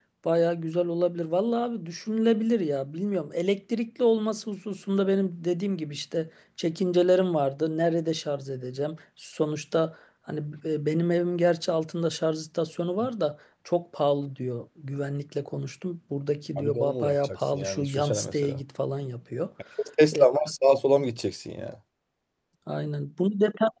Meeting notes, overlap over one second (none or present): present